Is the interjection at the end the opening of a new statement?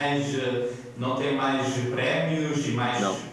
No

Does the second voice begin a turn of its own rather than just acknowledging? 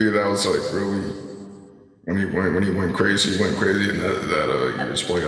Yes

